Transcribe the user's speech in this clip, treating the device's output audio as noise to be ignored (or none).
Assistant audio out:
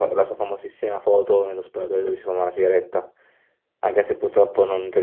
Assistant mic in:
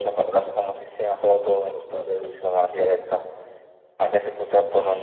none